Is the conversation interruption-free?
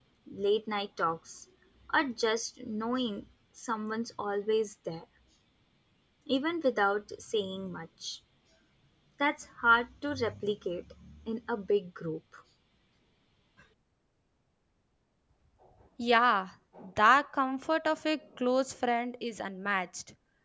Yes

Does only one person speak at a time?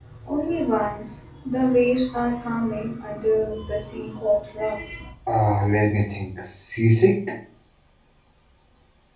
Yes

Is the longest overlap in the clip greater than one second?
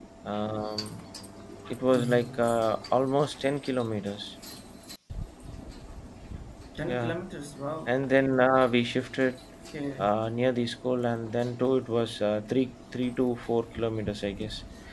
No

